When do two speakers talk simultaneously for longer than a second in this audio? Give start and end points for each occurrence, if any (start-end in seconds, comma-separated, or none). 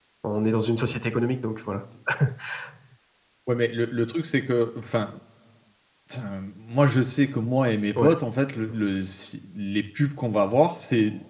none